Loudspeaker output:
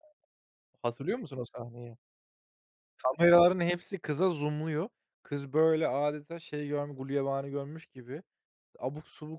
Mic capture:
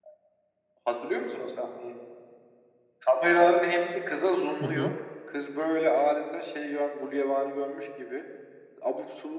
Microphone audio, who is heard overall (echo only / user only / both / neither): both